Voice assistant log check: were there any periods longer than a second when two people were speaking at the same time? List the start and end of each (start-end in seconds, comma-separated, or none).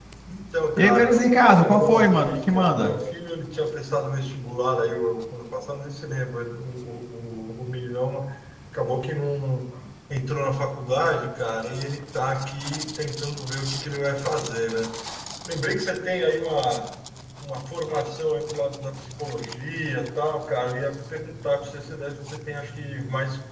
0.8-2.9